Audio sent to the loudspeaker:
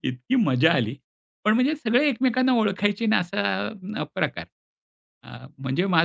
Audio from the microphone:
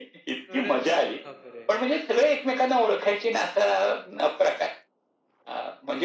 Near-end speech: present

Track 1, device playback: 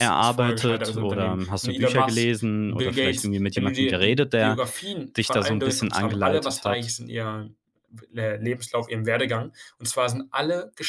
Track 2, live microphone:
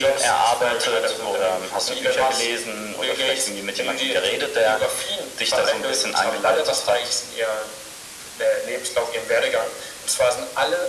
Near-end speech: none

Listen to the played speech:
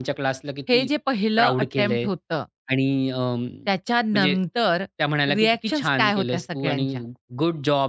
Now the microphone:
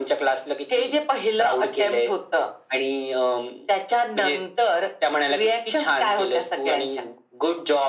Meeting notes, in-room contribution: none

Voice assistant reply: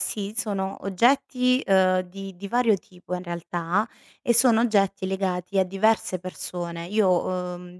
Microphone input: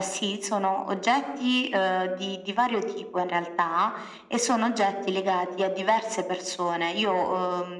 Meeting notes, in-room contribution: none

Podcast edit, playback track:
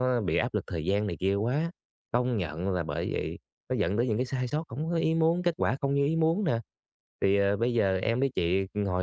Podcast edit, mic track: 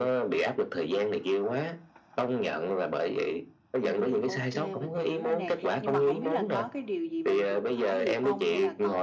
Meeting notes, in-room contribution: present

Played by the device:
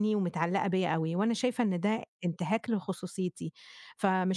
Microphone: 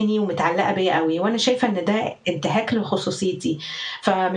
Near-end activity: none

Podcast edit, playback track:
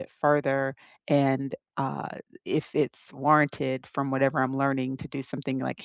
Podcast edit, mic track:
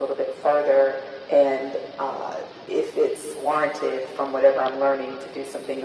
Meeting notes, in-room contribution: none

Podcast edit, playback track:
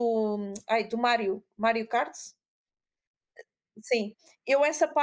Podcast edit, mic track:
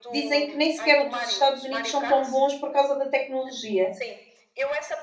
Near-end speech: present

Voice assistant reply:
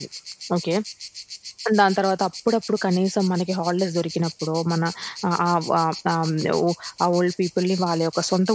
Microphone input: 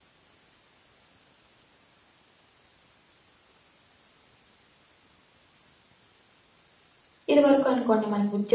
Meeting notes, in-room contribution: present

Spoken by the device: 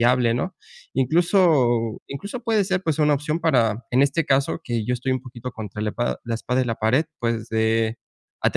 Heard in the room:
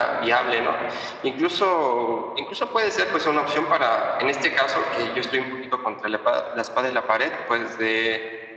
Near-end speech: none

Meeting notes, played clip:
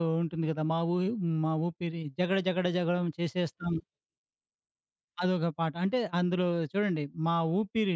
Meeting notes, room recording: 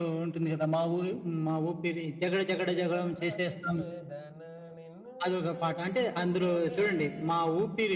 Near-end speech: present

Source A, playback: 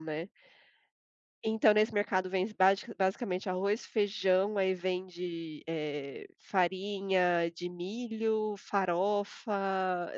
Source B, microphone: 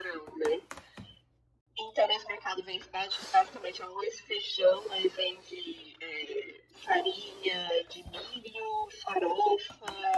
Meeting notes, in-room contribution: none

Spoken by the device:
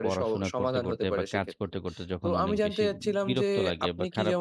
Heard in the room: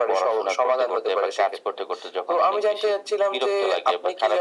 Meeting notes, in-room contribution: none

